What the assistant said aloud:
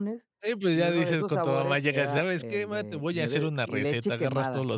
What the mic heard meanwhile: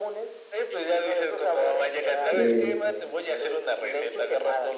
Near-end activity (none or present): present